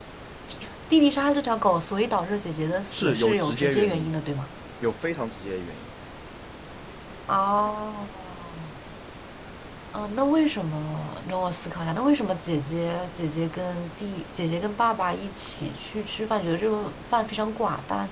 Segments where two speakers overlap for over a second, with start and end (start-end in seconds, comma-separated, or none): 2.9-4.1